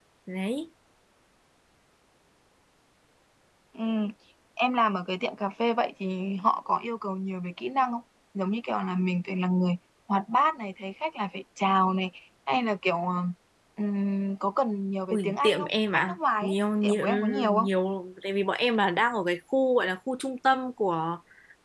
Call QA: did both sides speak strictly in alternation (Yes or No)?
No